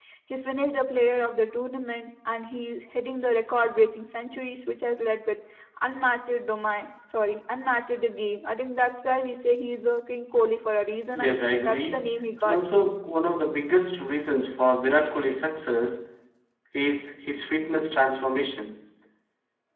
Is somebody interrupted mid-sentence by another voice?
Yes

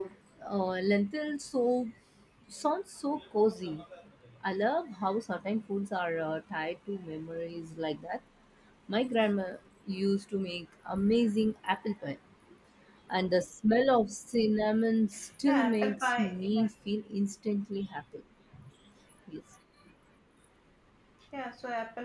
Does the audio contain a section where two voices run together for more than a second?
Yes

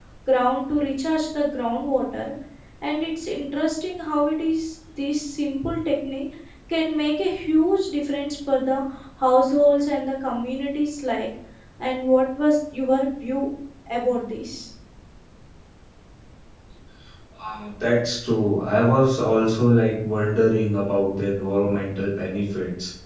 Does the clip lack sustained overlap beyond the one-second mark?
Yes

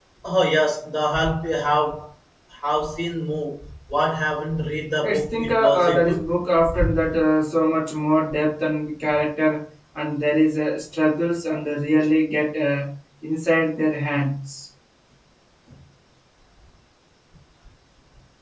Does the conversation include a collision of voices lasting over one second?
Yes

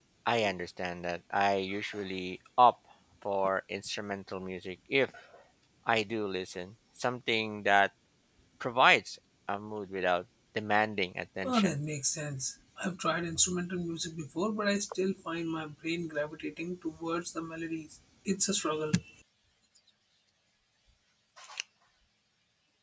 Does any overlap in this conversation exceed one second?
No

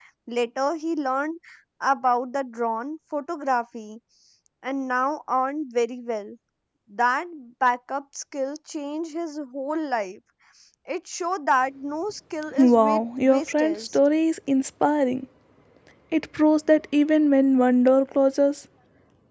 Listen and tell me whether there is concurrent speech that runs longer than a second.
Yes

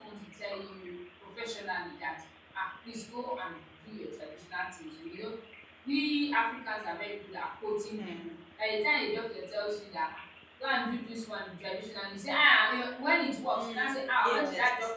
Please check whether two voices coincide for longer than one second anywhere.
Yes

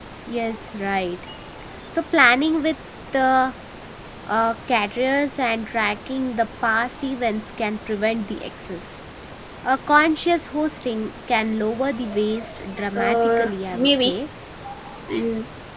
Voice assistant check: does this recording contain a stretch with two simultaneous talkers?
Yes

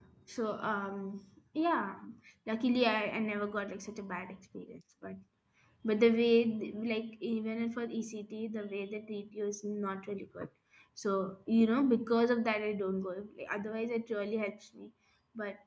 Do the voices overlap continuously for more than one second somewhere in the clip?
No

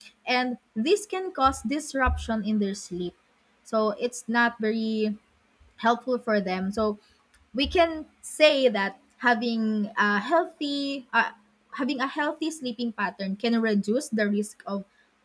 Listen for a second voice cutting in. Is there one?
No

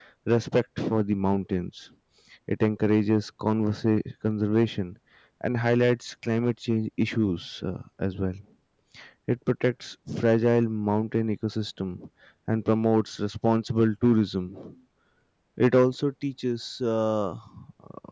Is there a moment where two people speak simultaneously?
No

